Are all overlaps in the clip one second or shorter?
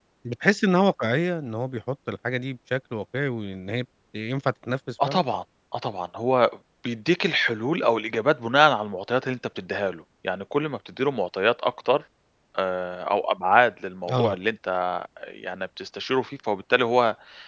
Yes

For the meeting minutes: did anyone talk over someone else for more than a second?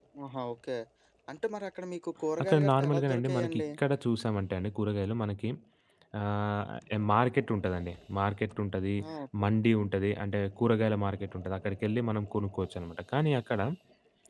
Yes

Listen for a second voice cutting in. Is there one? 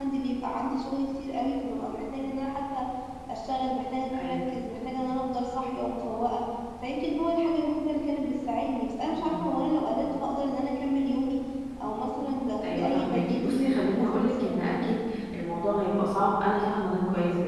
Yes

